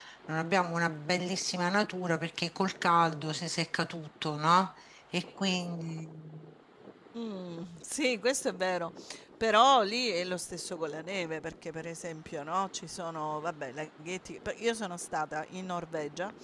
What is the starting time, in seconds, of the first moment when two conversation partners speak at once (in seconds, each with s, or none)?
none